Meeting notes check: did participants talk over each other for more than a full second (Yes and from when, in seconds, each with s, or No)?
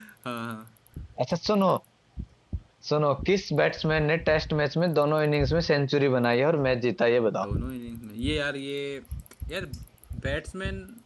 No